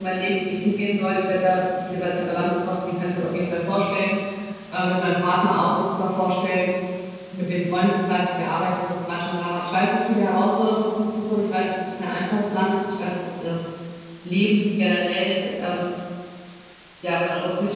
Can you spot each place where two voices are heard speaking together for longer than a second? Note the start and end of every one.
none

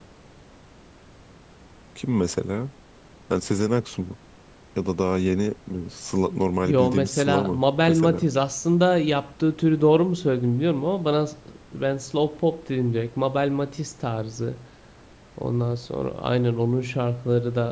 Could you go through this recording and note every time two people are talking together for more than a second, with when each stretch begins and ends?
6.7-8.2

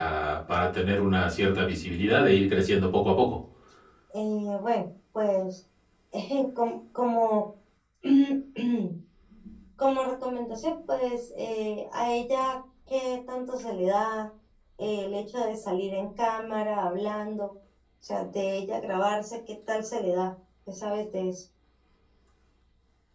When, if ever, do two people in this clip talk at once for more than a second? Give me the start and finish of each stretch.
none

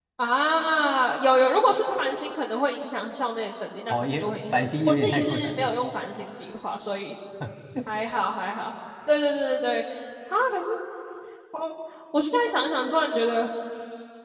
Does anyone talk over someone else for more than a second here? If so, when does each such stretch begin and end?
3.9-5.7

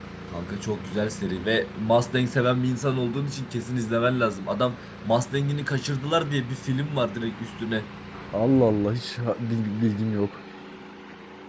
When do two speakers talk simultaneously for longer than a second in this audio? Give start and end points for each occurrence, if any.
none

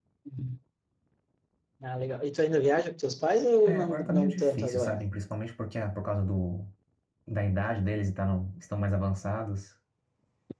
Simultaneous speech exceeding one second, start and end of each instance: 3.7-5.0

